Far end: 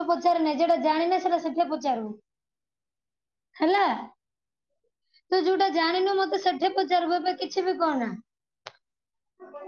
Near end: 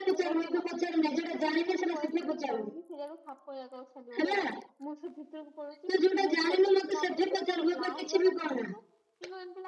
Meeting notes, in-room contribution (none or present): present